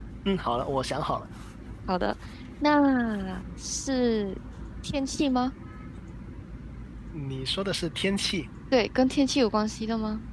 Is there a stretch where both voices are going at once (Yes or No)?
No